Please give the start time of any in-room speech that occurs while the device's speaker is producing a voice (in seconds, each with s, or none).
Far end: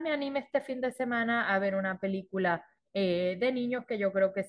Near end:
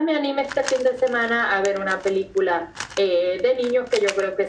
none